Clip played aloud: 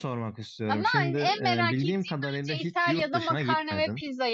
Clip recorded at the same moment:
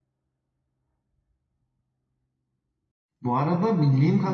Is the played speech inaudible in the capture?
Yes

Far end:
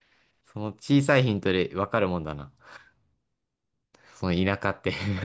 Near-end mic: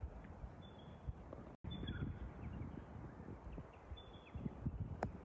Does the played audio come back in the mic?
No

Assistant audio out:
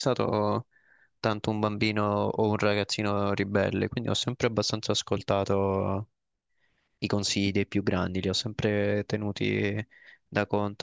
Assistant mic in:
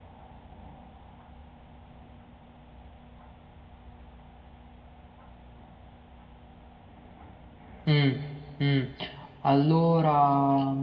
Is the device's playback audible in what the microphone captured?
No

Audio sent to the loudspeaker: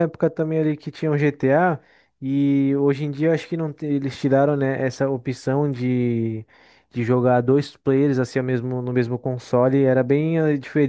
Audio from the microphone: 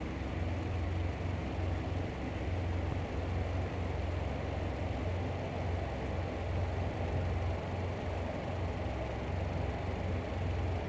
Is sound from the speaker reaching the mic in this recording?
No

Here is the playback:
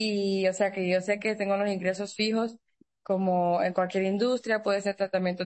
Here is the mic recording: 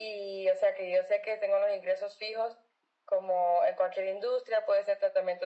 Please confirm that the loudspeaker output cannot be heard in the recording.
No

